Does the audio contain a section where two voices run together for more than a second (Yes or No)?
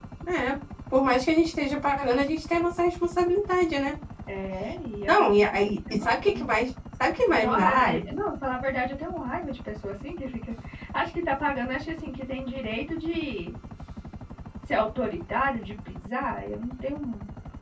Yes